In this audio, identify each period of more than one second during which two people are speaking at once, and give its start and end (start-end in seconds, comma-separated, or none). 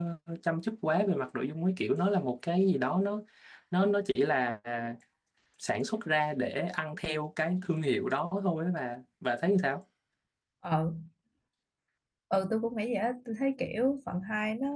none